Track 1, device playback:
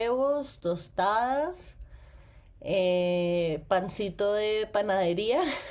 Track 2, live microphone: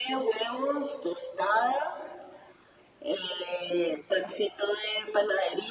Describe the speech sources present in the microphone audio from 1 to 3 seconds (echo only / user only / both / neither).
echo only